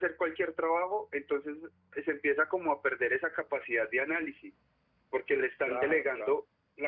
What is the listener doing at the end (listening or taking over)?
listening